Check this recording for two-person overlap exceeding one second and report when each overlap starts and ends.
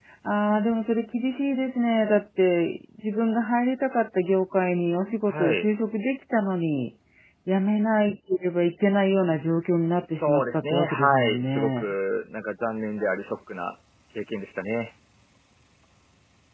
10.1-11.9

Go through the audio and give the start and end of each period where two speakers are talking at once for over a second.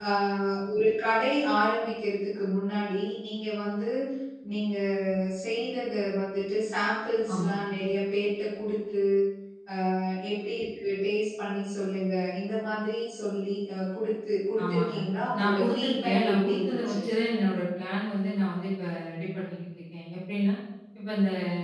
15.4-16.9

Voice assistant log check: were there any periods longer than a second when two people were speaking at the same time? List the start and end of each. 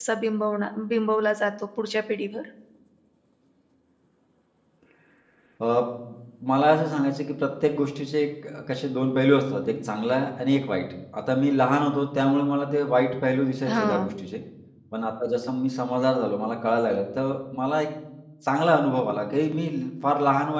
none

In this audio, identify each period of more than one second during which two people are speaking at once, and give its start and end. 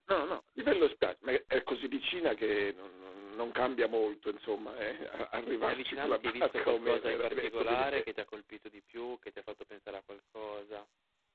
5.7-8.0

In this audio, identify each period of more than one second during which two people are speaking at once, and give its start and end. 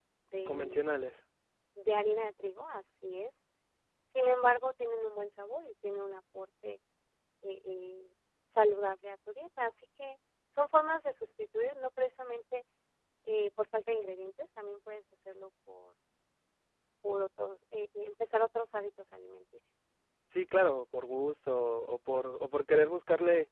none

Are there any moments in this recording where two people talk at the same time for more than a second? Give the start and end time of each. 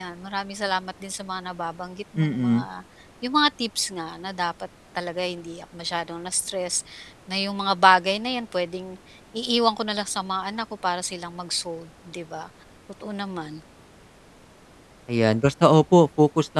none

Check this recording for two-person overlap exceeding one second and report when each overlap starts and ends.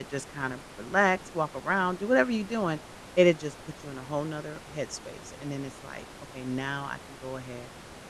none

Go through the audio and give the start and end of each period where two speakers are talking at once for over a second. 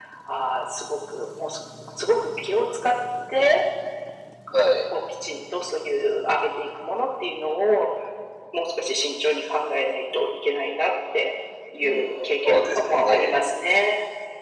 11.8-13.3

